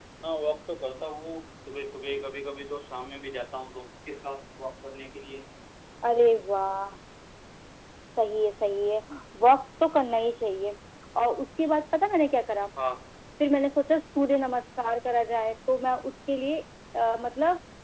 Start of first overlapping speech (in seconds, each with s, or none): none